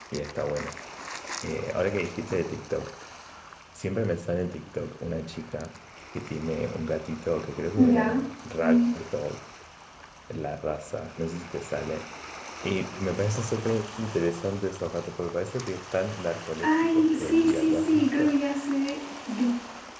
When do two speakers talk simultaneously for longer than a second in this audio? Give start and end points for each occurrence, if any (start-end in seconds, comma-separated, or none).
16.6-18.4